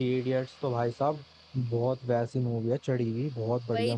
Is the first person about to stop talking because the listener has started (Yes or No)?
Yes